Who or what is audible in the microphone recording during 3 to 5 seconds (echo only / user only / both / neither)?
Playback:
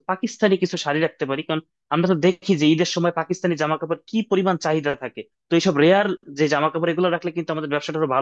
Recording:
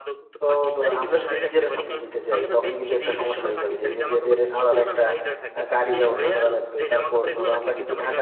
both